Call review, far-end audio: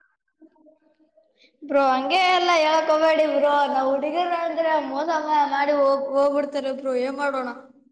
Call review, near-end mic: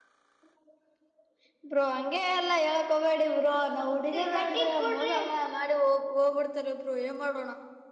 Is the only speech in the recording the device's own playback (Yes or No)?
No